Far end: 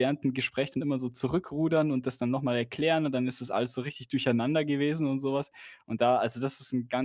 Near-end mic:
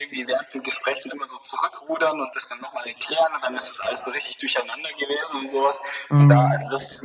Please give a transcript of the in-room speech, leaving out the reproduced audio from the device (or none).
Mhm.